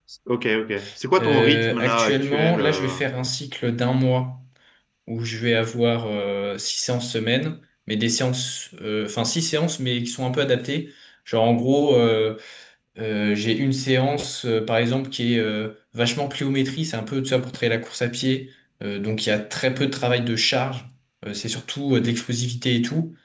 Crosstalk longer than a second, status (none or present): present